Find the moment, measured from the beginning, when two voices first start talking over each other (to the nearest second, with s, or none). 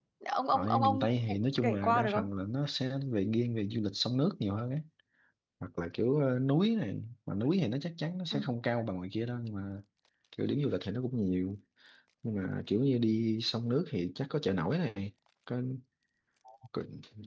1 s